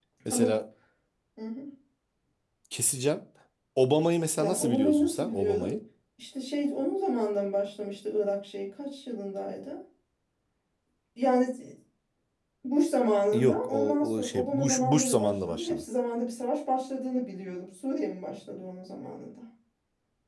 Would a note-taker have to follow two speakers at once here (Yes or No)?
Yes